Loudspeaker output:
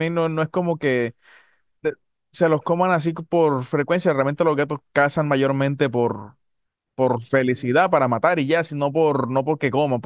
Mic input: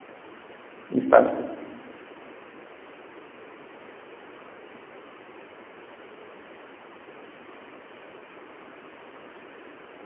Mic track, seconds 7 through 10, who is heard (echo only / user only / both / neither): neither